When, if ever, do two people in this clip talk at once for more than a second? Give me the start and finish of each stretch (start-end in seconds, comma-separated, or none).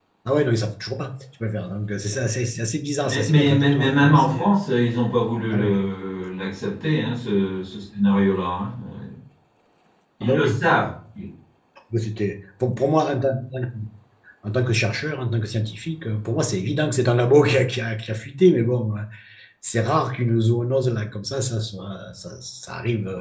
3.0-4.5